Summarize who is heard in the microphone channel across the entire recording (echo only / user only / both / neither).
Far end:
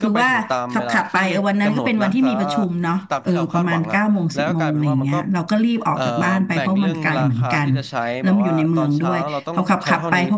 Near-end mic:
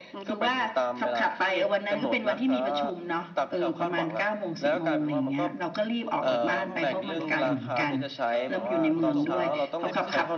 both